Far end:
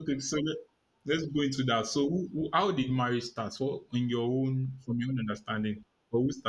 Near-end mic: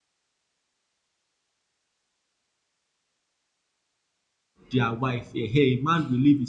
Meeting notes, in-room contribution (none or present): present